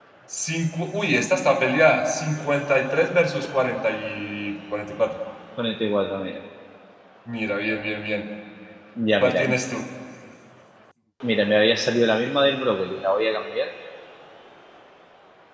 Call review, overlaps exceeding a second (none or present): none